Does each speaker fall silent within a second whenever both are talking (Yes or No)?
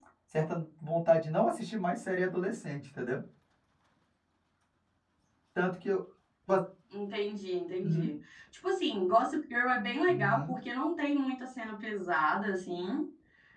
Yes